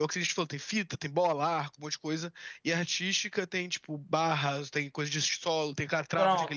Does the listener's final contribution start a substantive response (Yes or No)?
Yes